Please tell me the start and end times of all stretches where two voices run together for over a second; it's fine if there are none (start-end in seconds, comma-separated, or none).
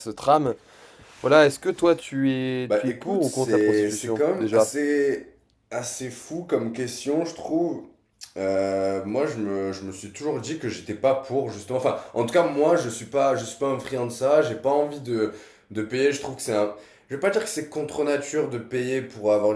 2.7-4.7